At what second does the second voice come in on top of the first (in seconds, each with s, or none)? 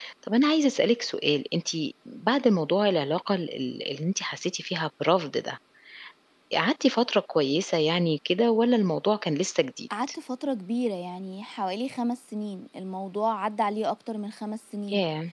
none